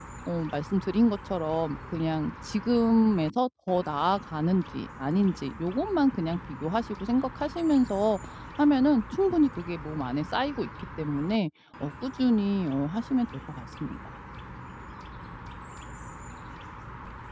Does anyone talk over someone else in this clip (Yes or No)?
No